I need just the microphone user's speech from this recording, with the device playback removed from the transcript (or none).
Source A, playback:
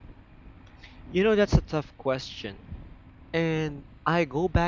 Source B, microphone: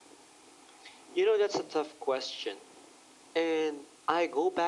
none